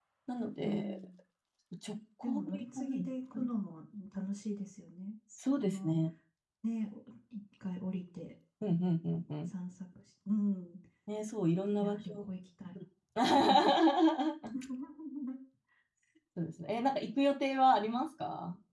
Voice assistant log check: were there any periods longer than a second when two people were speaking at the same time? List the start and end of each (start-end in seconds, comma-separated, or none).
2.2-3.5